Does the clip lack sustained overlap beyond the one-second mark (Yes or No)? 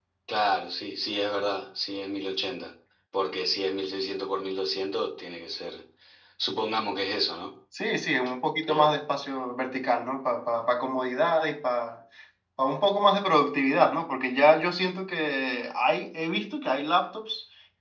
Yes